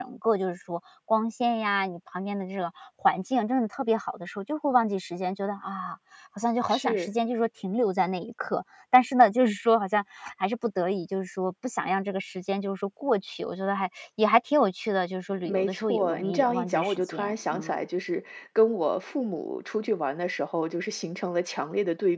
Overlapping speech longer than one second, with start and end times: 15.5-17.8

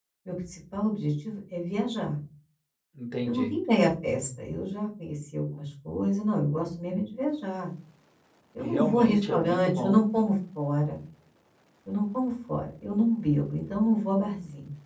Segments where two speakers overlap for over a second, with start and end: 8.6-10.0

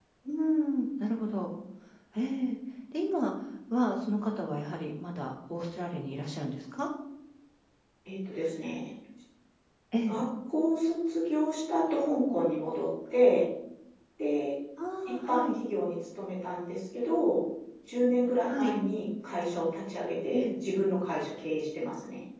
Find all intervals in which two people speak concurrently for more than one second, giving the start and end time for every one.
none

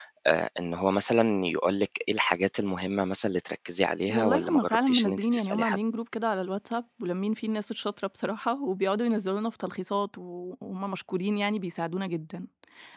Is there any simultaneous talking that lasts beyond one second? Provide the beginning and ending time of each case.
4.1-5.8

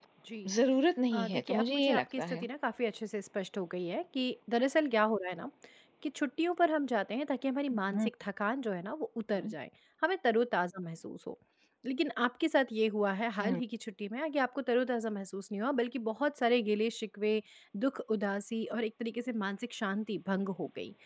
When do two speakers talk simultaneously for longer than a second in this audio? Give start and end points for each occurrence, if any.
1.1-2.5

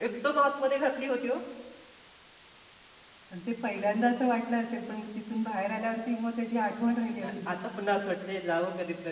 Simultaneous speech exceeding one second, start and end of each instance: none

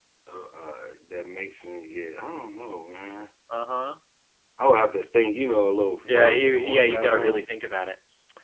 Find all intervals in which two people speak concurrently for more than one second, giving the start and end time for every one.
6.0-7.5

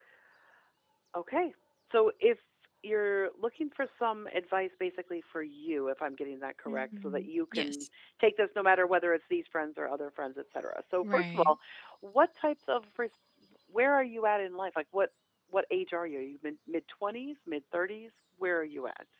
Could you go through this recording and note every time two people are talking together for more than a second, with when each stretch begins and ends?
6.7-7.9

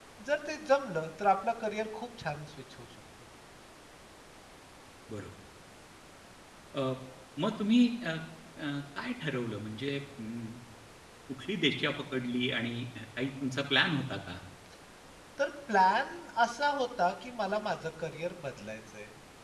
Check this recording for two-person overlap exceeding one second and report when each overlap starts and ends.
none

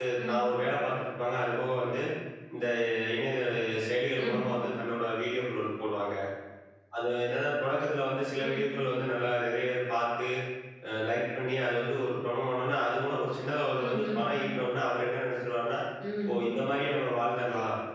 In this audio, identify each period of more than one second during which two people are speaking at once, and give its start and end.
none

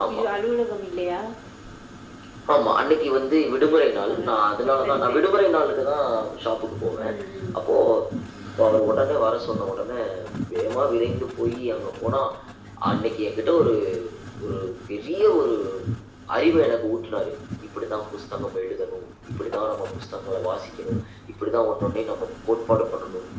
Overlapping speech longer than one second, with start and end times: none

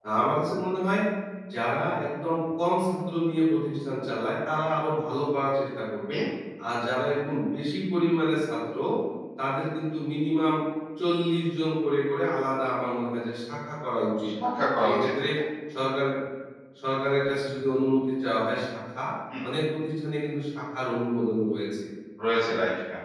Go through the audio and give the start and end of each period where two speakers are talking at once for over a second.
none

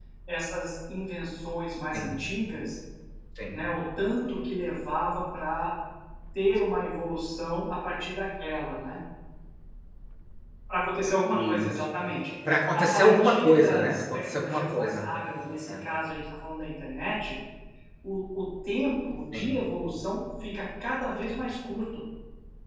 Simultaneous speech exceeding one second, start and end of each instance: 12.7-15.0

